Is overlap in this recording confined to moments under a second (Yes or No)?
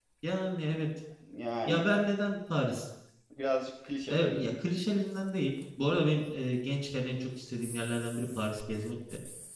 Yes